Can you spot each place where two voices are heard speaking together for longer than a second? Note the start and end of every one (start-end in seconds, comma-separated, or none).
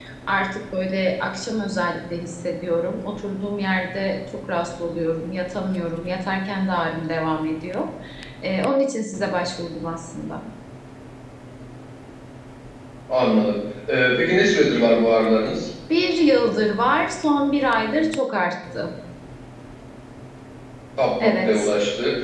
none